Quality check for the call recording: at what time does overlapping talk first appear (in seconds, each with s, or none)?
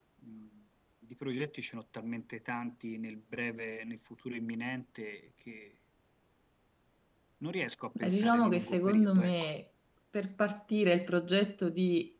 8.0 s